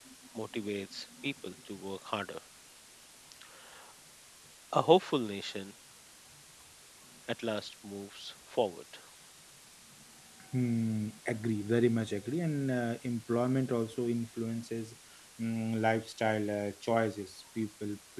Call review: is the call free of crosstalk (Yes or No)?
Yes